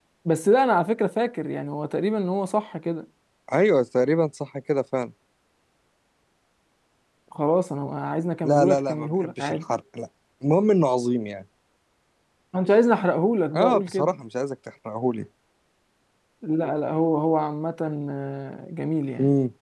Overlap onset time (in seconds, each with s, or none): 8.4 s